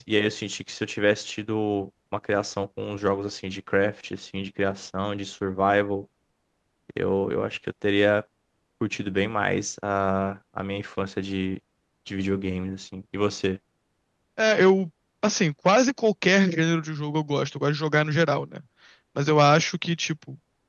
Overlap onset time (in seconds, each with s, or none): none